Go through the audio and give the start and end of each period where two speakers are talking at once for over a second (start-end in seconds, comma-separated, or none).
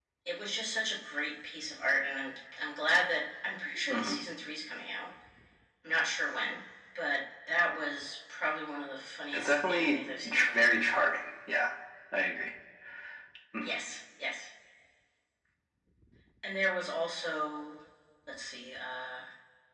9.3-10.8